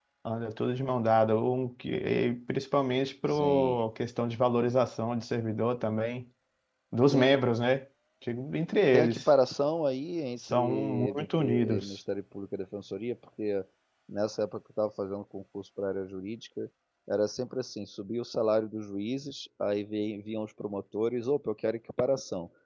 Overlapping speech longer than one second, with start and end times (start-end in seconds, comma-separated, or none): 10.5-12.0